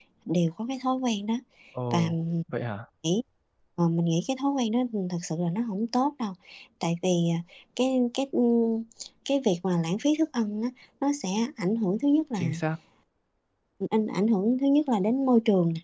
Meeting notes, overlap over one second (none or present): none